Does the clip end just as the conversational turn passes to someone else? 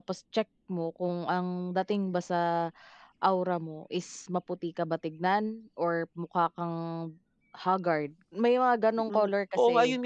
Yes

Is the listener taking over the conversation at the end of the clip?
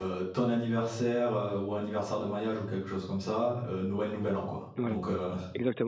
Yes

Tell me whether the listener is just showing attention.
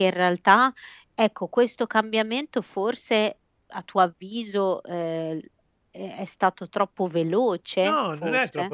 No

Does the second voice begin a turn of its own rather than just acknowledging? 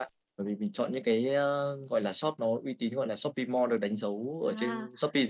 Yes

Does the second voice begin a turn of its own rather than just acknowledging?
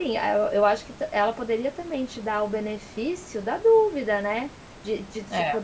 No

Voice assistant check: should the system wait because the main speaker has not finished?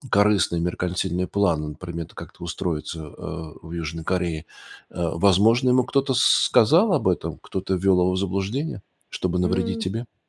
No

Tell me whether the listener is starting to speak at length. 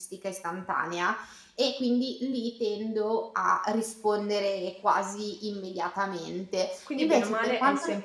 Yes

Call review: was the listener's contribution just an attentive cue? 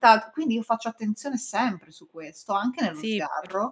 No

